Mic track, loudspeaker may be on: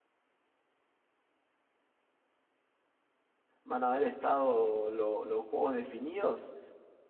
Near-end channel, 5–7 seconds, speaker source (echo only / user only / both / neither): user only